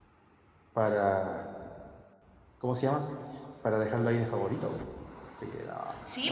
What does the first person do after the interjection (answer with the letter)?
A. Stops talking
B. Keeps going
A